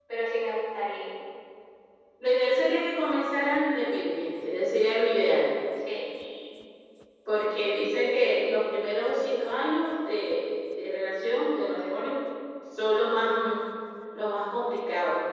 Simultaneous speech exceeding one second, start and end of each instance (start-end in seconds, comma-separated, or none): none